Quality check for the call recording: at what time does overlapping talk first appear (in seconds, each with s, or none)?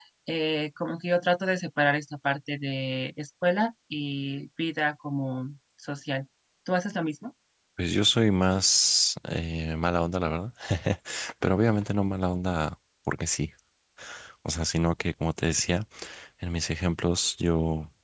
none